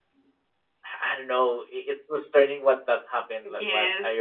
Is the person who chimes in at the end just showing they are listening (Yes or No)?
No